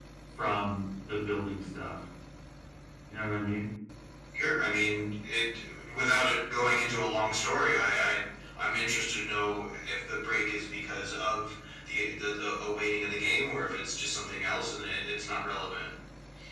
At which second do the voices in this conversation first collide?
none

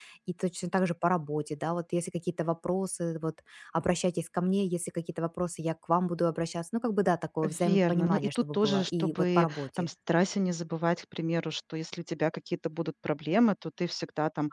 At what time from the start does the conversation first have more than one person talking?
7.4 s

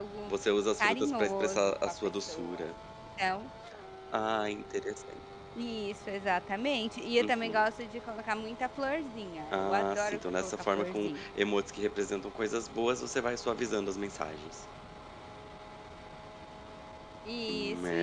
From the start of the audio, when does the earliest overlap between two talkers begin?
0.8 s

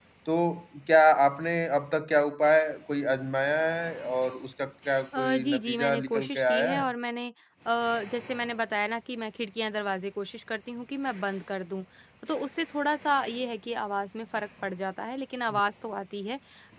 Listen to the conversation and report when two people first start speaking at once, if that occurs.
5.1 s

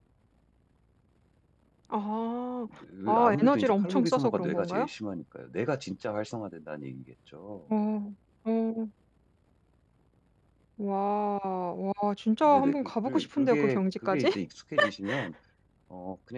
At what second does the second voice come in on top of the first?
3.1 s

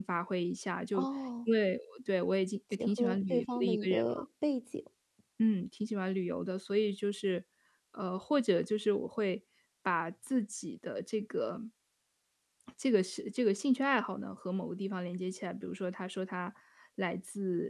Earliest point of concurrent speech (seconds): 2.7 s

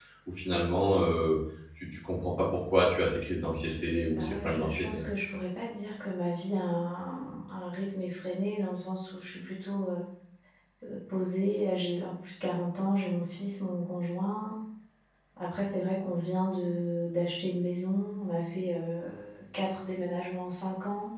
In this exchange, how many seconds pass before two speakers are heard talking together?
3.6 s

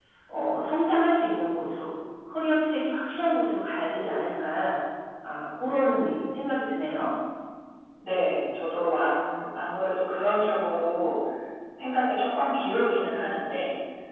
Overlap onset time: none

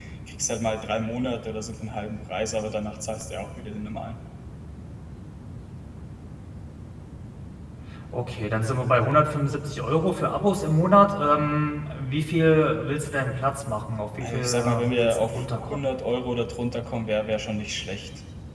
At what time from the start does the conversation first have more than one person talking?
14.2 s

